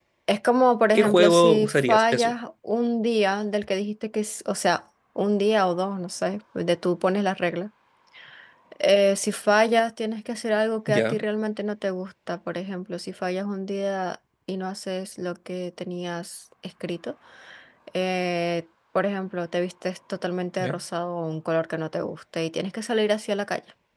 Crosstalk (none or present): present